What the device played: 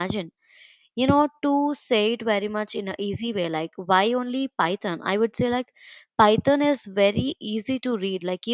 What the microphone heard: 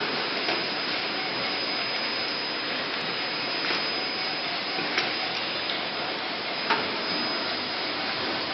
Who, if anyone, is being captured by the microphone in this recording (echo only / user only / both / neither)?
neither